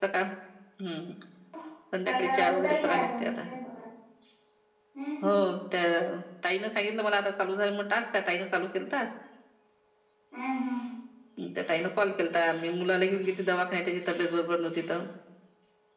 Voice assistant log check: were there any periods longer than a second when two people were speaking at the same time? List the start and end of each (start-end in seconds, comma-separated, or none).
2.0-3.4